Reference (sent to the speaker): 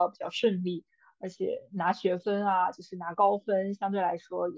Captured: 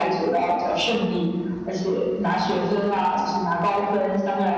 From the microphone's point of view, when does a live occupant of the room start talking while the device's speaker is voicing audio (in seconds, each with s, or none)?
none